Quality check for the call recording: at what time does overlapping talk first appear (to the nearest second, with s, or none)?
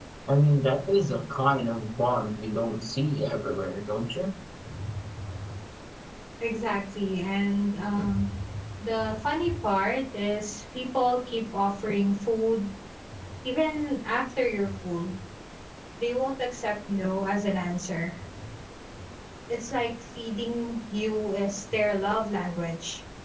none